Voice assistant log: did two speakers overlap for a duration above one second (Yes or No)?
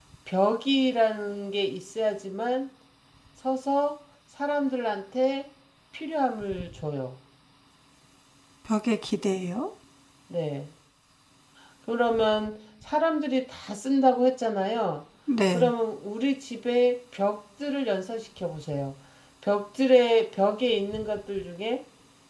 No